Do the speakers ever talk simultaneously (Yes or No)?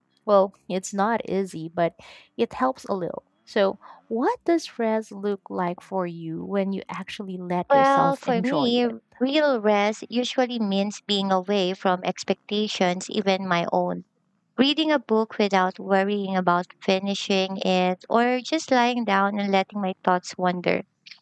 Yes